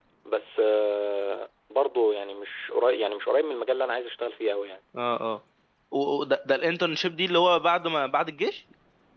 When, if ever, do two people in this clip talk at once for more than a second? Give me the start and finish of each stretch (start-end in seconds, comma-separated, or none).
none